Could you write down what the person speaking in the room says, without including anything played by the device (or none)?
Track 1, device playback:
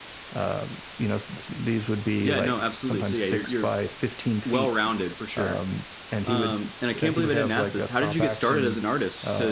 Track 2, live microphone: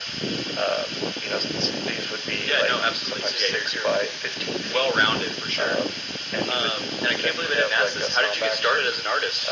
none